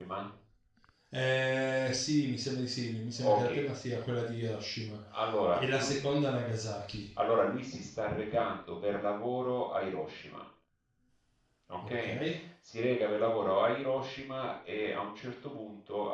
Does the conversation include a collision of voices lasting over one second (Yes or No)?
No